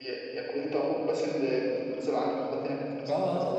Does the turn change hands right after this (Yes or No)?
Yes